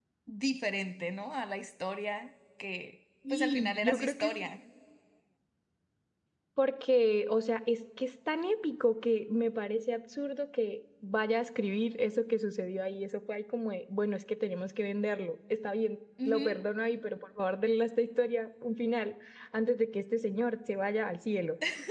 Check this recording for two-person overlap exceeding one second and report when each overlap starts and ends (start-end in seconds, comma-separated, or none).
3.3-4.5